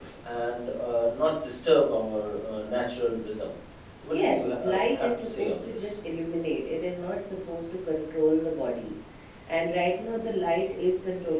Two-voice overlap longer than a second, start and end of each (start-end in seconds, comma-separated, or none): 4.1-5.9